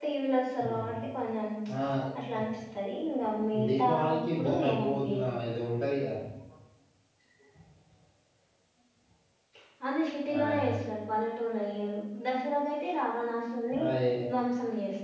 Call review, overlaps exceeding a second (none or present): present